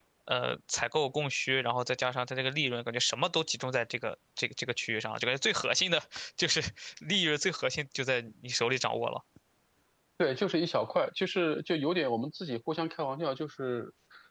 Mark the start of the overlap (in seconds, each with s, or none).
none